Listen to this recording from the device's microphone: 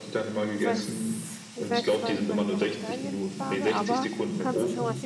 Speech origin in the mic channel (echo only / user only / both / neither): both